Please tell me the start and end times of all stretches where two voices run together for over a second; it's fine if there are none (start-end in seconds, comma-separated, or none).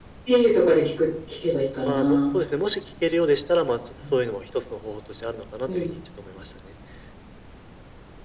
none